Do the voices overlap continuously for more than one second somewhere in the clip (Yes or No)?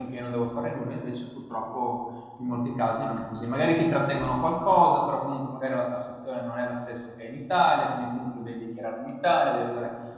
No